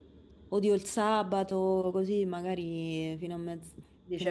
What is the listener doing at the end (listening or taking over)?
taking over